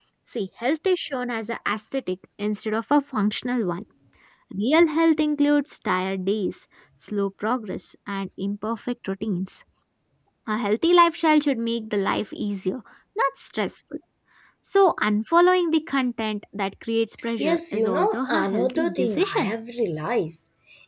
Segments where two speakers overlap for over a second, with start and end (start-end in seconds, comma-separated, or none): 17.4-19.5